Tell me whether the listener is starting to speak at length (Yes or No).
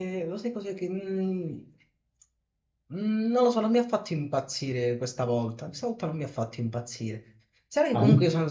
No